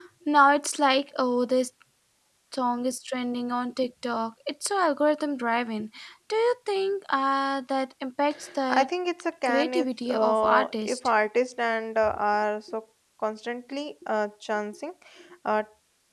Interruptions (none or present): present